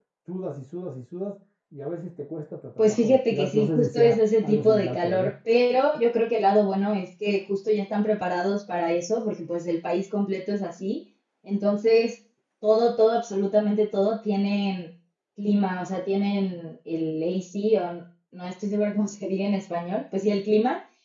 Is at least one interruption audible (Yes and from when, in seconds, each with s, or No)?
Yes, from 2.8 s